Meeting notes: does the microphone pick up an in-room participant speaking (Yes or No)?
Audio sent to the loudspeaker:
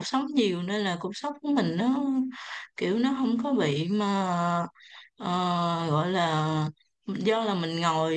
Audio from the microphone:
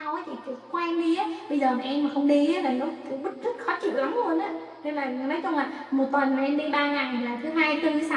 Yes